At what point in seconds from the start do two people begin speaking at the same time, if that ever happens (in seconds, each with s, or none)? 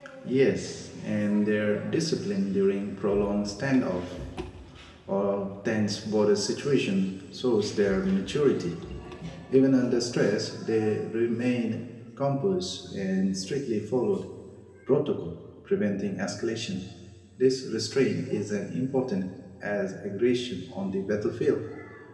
none